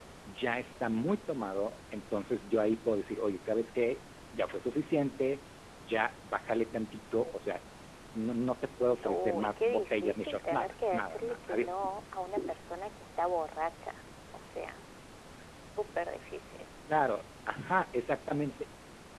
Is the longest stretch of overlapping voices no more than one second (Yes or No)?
No